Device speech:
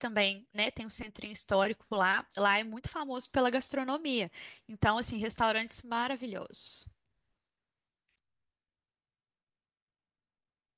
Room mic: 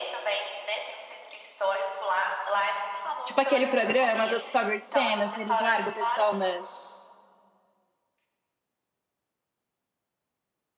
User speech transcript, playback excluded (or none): Tipo aquele programa do Discovery Channel que eles largam o pessoal na,